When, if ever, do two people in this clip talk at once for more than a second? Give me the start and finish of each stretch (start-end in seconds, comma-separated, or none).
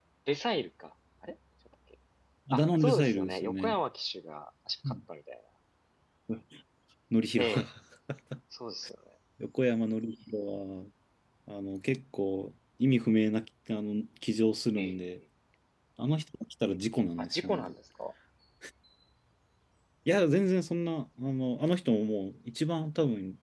2.5-3.7